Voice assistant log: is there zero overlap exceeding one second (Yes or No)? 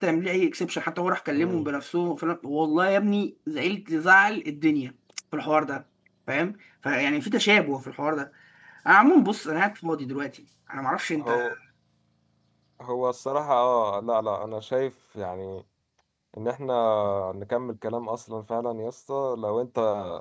Yes